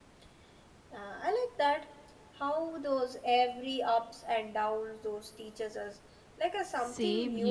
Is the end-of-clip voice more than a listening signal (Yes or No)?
Yes